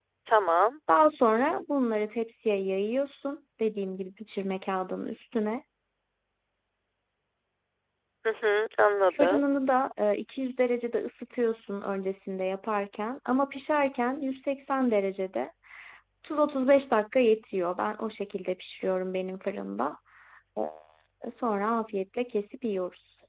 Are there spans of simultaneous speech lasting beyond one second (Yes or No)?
No